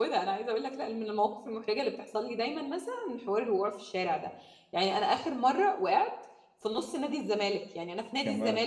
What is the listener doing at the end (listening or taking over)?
listening